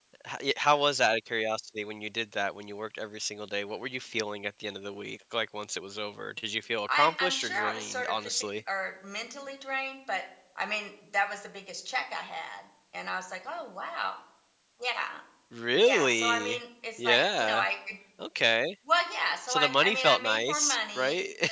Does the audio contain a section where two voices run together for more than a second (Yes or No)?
Yes